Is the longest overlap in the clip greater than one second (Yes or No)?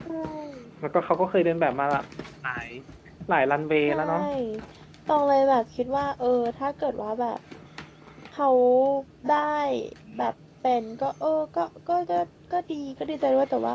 No